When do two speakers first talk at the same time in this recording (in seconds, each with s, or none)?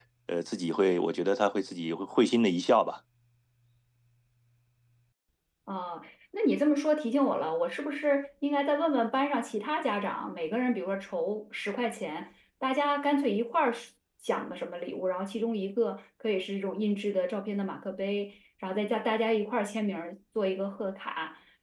none